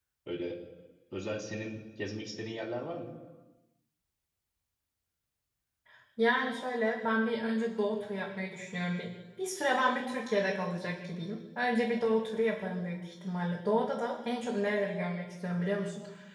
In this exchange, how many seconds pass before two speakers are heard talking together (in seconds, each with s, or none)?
none